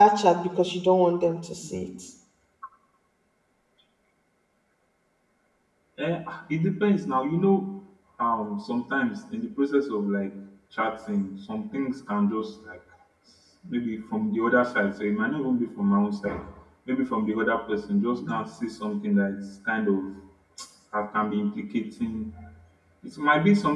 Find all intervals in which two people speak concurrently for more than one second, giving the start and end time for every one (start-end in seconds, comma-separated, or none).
none